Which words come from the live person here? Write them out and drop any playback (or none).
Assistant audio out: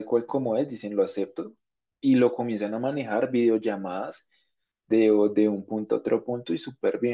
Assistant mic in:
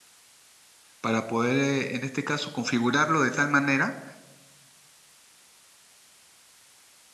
Para poder, eh, en este caso, configurarlo de tal manera